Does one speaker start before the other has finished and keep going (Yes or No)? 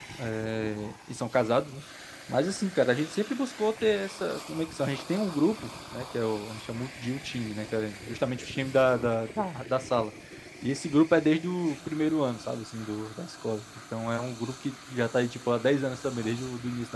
No